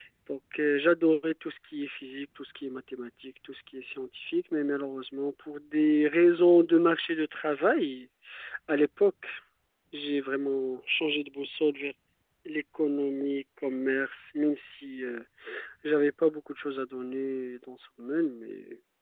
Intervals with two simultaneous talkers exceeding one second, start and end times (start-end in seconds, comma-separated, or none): none